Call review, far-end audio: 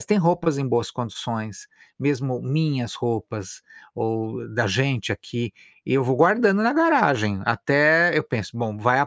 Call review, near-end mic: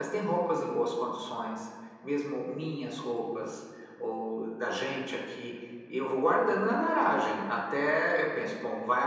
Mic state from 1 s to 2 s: echo only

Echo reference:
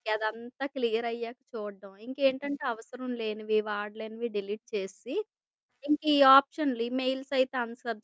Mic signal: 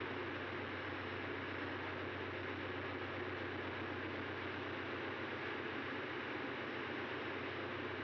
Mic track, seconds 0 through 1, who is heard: neither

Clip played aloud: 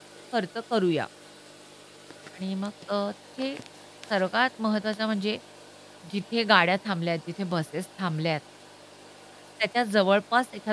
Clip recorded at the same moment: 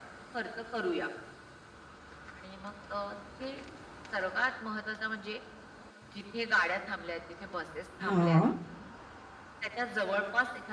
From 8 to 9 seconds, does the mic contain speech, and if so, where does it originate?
both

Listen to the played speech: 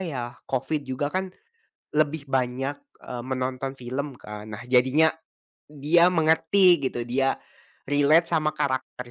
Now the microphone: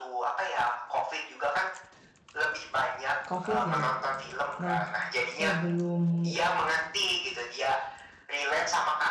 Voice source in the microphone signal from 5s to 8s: both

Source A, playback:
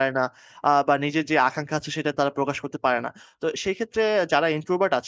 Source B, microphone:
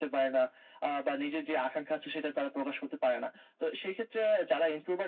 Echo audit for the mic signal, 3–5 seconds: echo only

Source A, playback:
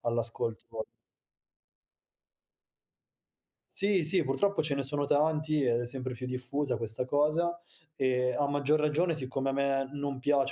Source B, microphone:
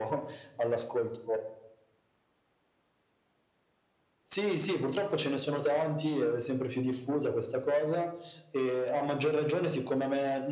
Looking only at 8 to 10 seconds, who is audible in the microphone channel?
echo only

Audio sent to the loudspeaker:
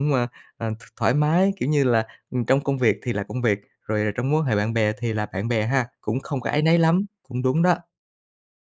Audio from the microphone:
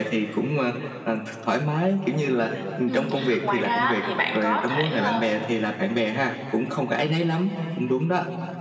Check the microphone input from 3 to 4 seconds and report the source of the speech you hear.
both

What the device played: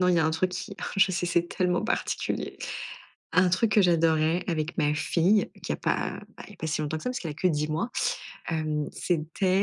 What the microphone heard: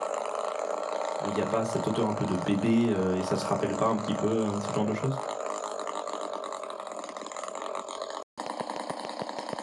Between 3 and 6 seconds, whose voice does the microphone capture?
user only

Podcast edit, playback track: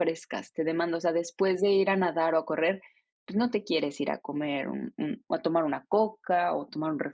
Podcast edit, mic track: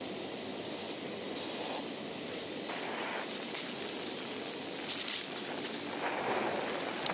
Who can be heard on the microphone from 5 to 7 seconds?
neither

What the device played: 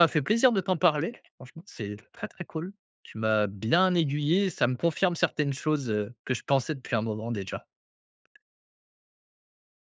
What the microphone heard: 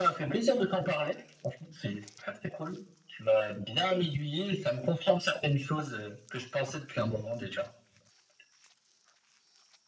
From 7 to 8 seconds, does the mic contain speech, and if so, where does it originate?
echo only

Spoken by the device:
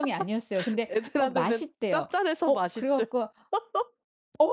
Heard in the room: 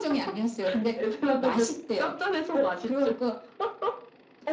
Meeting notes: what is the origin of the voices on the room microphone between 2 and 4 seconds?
echo only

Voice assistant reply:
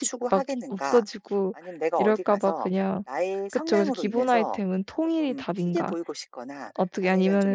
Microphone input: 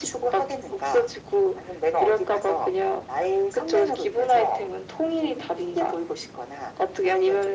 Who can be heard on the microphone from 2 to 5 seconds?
echo only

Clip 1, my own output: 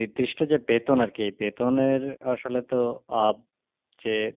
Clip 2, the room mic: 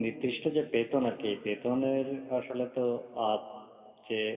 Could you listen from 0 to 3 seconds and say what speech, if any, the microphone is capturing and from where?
echo only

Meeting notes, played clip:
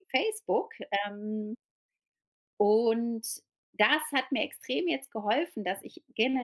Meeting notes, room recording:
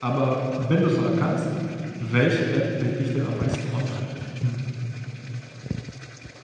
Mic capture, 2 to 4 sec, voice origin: user only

